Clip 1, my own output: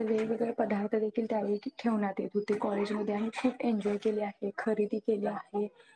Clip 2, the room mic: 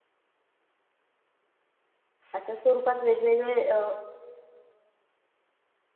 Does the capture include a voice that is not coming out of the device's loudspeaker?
Yes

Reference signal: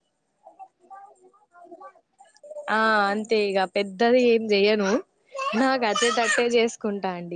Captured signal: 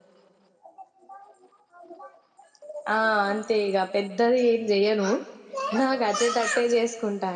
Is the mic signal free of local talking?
Yes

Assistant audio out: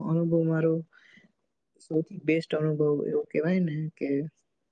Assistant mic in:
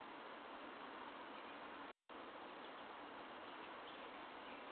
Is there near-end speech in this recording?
No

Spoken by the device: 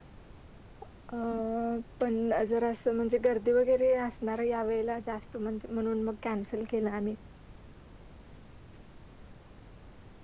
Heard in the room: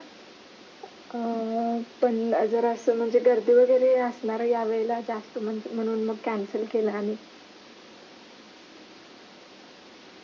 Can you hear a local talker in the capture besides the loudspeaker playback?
No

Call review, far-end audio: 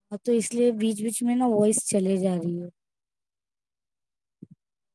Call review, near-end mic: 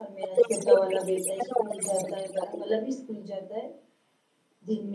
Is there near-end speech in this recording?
Yes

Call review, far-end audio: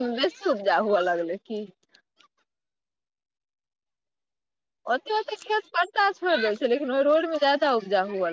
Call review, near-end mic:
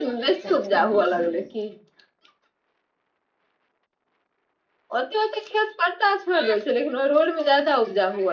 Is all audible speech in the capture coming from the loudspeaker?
No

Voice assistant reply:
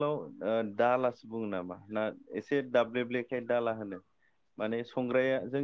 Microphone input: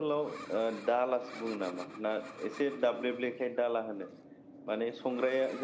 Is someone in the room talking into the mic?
No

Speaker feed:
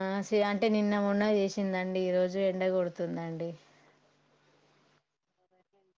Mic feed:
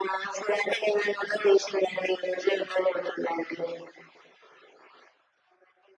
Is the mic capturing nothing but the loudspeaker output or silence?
Yes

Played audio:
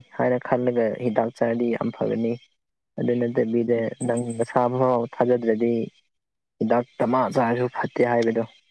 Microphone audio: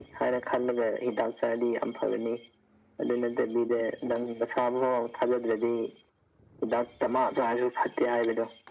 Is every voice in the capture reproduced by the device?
Yes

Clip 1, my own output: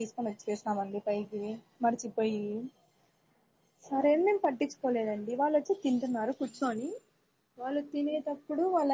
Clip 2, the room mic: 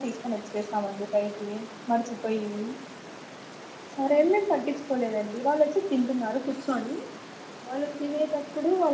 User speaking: No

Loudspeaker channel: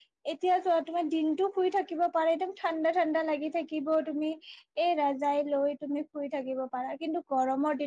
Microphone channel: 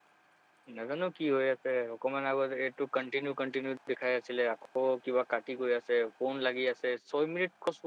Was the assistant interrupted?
Yes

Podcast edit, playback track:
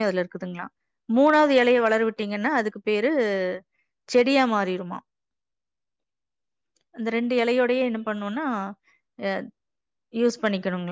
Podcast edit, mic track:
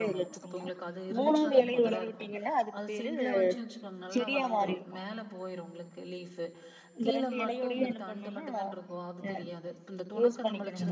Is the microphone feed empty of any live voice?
No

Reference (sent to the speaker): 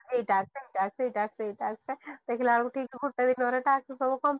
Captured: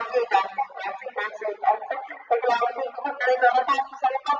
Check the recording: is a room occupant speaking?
No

